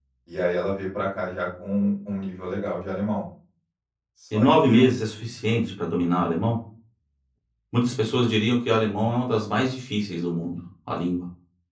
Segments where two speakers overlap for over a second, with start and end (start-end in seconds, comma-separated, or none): none